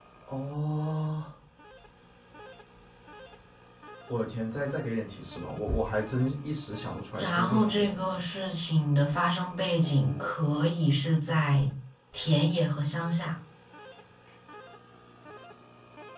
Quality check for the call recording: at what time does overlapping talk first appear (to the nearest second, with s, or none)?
7 s